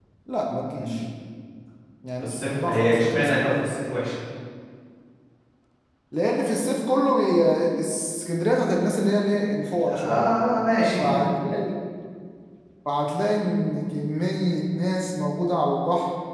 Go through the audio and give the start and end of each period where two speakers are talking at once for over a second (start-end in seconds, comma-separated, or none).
2.2-3.6